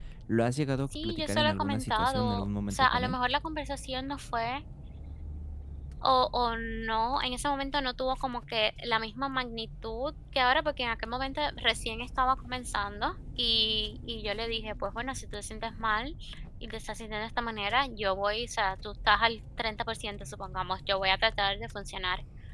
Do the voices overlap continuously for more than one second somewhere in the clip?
Yes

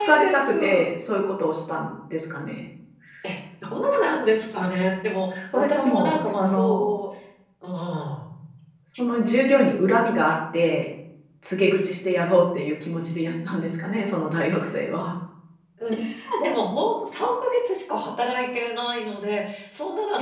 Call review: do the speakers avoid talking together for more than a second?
No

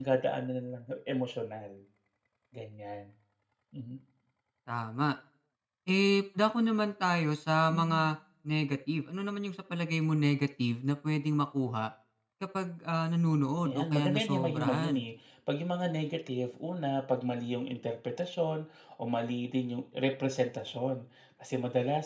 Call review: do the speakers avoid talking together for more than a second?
No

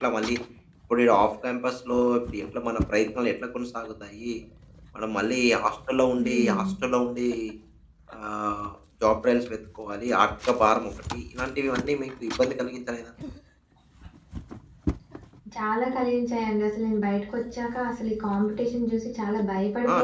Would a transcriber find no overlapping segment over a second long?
Yes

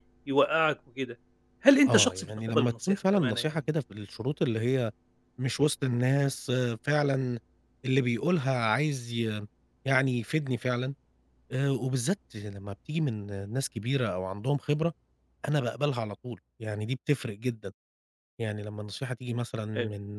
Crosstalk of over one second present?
Yes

